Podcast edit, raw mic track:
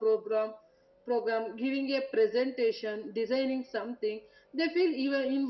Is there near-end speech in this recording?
No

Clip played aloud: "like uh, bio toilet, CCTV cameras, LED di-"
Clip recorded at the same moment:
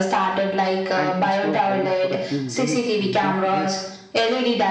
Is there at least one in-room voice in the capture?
Yes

